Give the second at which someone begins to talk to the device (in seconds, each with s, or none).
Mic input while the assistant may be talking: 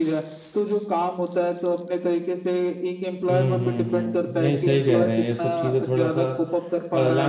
3.3 s